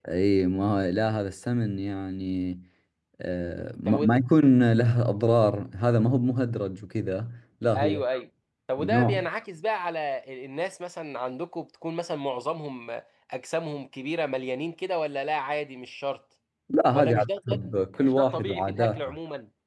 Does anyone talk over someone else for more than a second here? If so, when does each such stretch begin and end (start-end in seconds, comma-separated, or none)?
16.9-19.1